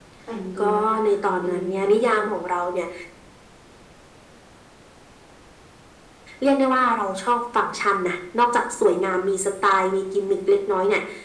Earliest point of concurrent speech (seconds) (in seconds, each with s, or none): 0.6 s